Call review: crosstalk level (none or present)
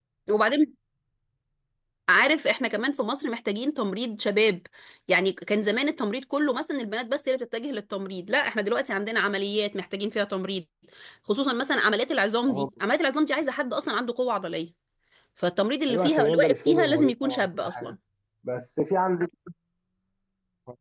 present